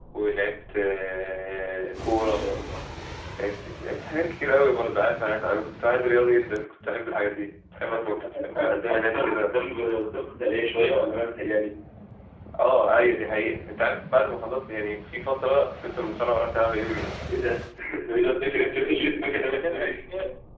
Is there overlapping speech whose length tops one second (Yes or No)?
Yes